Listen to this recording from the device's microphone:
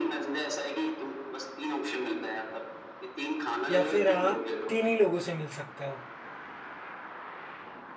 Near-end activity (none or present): present